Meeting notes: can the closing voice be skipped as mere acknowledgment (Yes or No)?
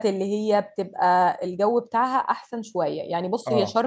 Yes